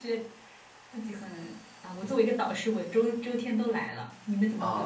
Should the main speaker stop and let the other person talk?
Yes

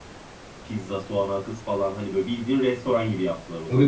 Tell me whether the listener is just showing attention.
No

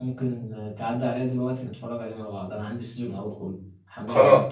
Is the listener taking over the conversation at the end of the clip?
Yes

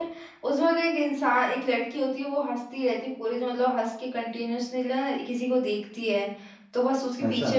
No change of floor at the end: Yes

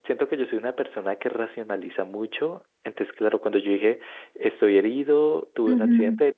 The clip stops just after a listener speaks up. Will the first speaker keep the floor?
Yes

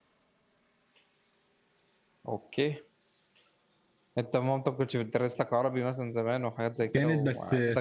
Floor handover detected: Yes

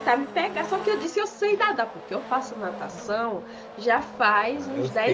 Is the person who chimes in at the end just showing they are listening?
No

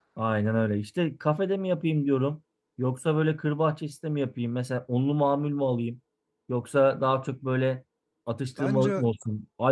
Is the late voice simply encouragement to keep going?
Yes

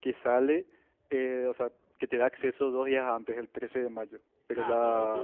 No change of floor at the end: No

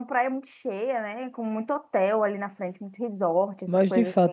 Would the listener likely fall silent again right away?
No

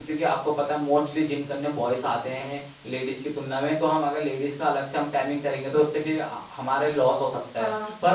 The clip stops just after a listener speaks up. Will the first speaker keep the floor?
Yes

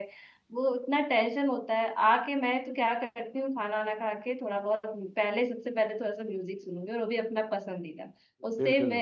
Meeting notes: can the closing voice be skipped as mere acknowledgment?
Yes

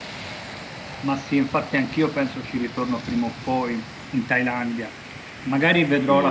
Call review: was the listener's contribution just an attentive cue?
No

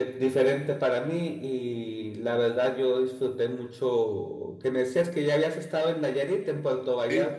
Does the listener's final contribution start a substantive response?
Yes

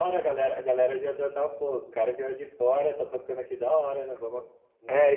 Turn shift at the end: Yes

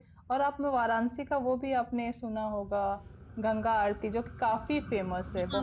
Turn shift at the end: Yes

